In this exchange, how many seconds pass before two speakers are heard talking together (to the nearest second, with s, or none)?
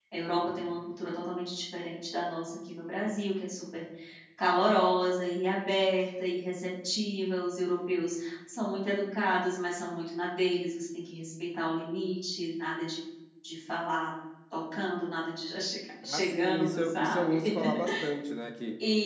16 s